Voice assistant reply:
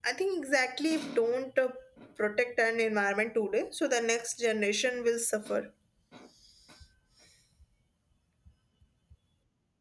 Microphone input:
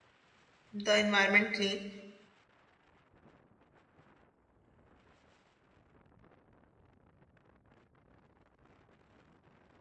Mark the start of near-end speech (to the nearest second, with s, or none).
1 s